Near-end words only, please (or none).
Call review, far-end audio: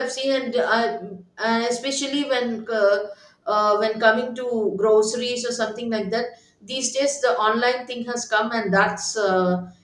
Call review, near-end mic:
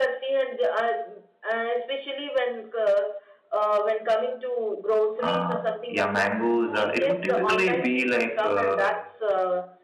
uh, yeah, mangoes. Uh, it would typically be like, uh,